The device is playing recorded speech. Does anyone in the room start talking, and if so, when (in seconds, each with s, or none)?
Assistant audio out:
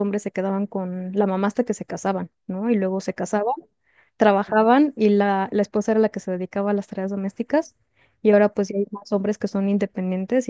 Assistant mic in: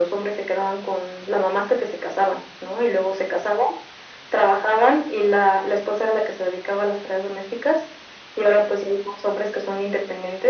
none